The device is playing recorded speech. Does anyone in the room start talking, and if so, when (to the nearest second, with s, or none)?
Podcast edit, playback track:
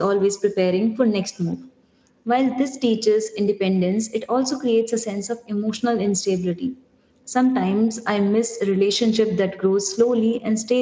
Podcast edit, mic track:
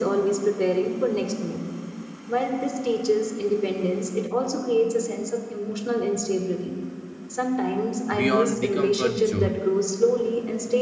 8 s